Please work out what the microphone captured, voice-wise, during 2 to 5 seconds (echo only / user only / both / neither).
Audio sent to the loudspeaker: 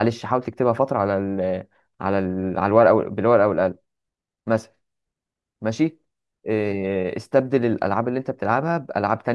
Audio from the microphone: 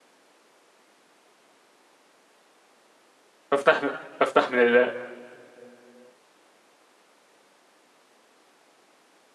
user only